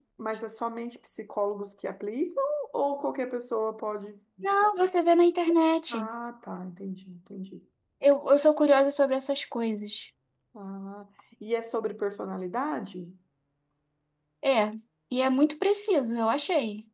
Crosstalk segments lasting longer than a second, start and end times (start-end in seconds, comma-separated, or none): none